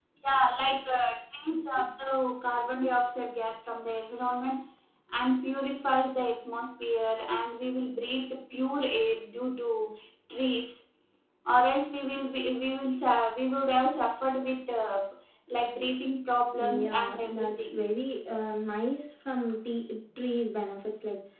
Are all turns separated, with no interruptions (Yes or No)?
No